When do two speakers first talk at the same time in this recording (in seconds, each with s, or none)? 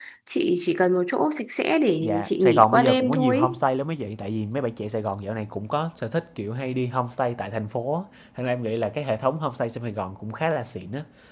2.0 s